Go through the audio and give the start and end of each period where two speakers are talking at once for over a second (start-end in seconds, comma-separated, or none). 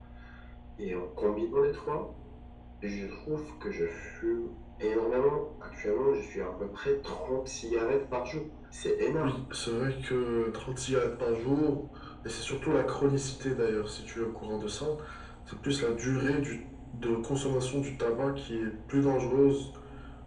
none